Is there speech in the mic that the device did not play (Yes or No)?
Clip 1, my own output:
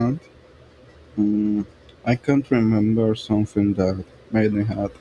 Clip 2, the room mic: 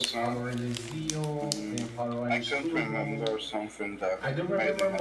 Yes